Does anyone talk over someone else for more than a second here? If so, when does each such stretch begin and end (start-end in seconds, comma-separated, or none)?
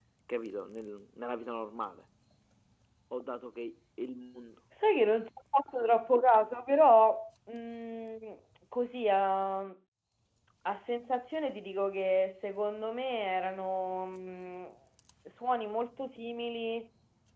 none